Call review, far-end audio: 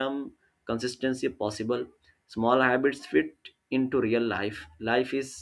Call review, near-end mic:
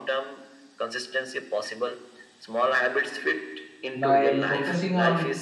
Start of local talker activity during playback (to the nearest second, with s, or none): 4 s